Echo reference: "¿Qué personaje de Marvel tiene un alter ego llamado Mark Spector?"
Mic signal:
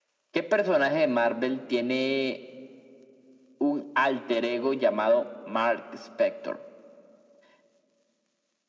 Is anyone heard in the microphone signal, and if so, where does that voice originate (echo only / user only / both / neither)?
echo only